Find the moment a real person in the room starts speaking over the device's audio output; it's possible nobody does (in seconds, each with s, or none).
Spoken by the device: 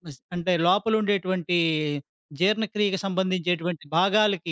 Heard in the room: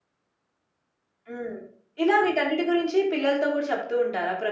1.3 s